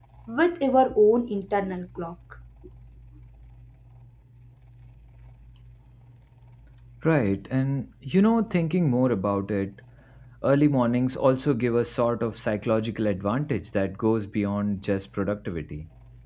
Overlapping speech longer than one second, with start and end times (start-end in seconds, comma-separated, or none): none